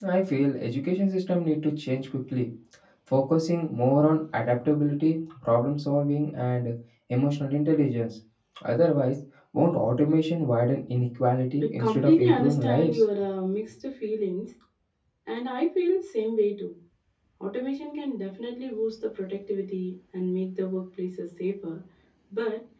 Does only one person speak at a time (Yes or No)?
No